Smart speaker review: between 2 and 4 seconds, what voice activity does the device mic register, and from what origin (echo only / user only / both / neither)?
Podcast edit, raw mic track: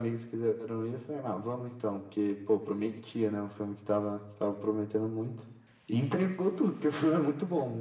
echo only